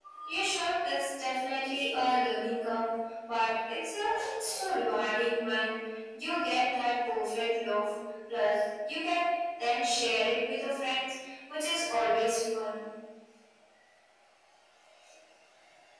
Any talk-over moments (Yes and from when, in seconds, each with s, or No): No